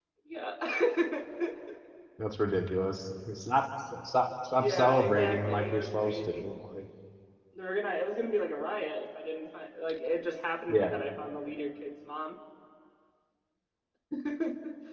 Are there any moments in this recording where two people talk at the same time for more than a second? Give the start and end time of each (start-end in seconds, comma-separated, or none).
4.6-6.5